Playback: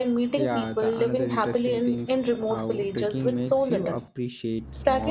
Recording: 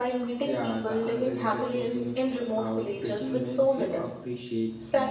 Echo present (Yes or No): Yes